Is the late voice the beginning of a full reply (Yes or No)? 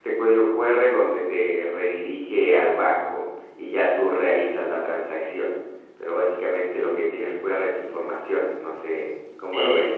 Yes